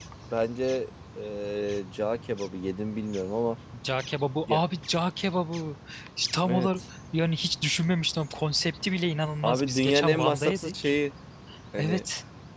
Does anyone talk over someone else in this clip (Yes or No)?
Yes